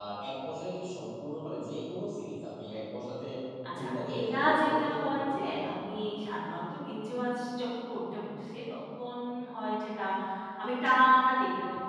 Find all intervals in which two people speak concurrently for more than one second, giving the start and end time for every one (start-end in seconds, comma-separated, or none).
3.8-5.6